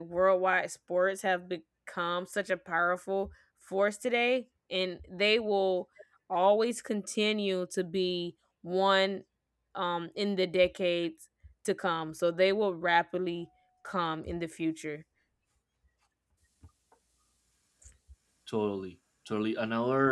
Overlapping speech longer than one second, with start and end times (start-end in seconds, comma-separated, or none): none